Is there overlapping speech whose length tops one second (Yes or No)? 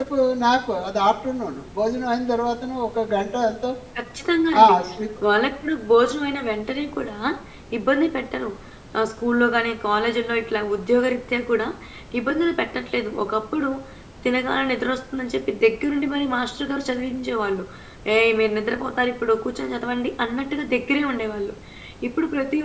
No